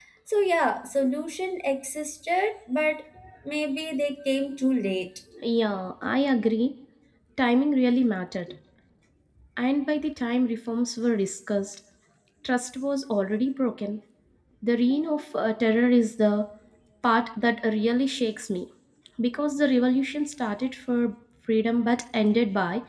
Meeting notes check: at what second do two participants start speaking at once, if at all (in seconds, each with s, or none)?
none